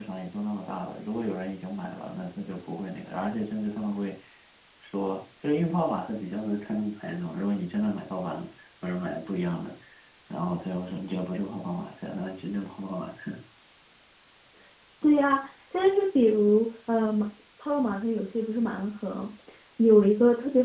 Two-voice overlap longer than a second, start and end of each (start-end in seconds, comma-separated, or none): none